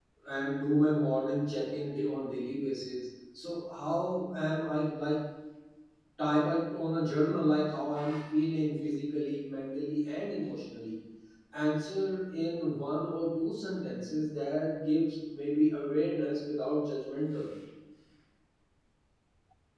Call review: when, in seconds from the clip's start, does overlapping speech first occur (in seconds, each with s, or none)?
none